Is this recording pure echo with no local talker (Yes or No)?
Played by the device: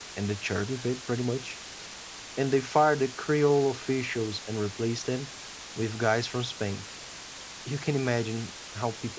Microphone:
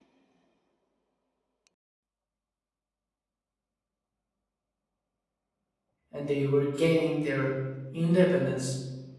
No